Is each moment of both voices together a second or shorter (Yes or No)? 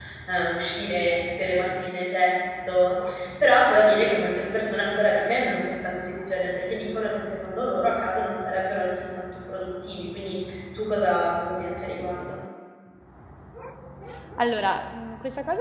Yes